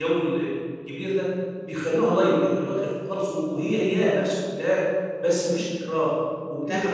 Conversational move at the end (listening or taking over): taking over